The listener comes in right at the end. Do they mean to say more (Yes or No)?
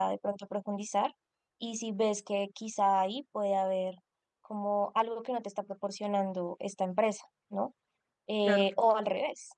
No